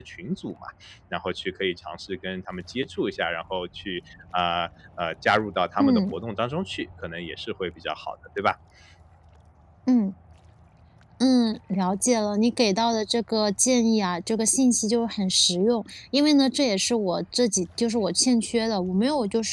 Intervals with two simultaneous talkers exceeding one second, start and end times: none

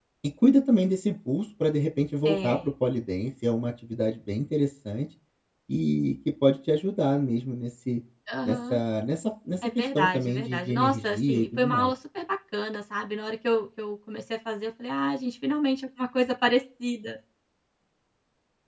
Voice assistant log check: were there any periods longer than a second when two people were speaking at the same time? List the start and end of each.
9.8-11.9

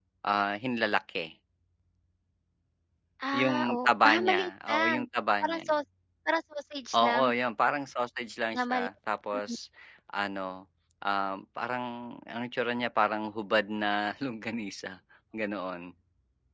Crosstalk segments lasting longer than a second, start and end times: 3.3-5.0

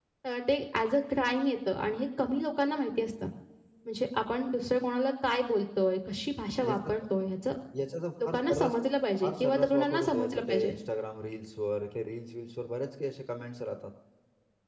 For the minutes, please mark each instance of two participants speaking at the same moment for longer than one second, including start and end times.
9.2-10.7

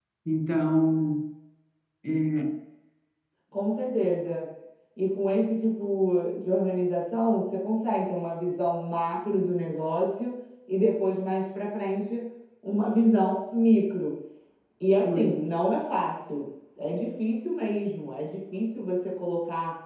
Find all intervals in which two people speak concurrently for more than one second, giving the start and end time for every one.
none

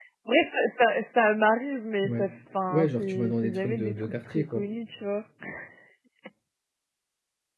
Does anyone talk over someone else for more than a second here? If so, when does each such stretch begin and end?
2.7-4.7

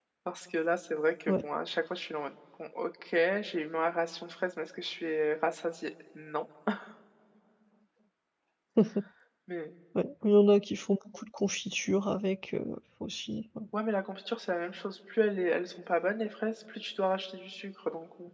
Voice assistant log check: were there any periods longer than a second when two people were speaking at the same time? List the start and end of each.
none

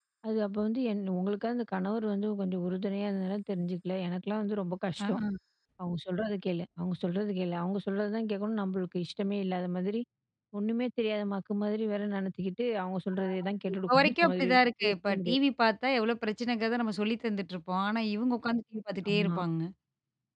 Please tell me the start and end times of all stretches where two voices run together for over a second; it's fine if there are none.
13.9-15.4

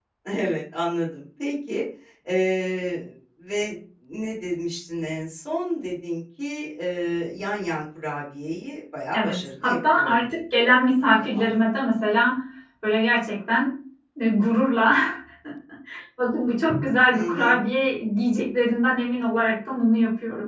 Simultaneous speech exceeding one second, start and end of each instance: 9.1-10.4

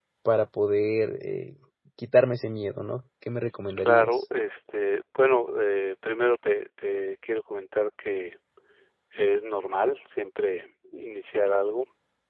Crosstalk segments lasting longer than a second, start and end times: none

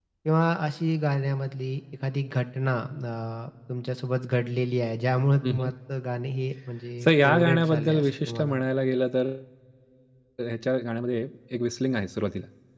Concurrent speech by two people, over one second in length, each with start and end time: 7.0-8.6

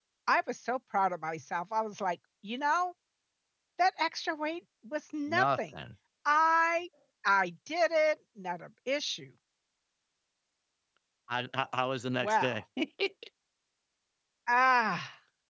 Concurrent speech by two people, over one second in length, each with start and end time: none

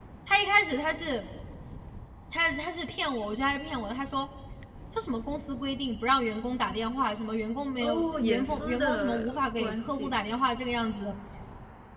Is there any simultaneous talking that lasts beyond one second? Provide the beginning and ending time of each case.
7.8-10.2

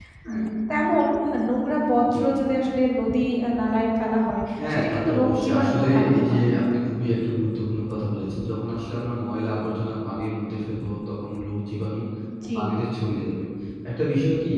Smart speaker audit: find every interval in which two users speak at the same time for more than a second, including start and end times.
4.7-6.5

